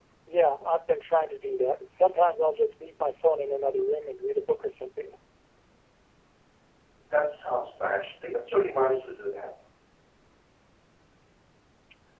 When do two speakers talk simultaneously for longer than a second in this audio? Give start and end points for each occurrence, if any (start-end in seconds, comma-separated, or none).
none